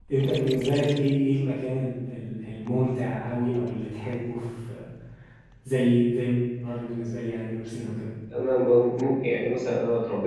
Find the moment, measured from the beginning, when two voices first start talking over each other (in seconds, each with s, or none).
none